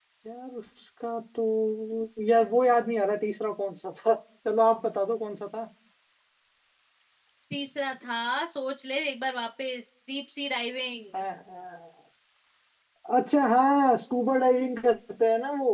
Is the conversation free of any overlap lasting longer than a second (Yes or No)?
Yes